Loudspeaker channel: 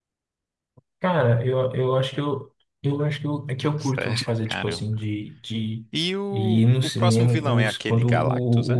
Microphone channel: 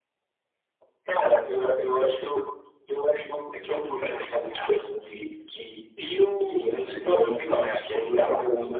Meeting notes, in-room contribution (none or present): none